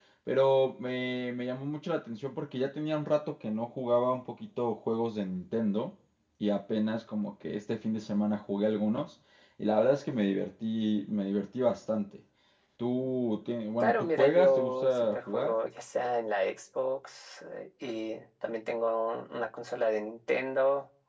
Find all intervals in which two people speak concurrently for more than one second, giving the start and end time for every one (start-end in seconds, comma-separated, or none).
13.8-15.5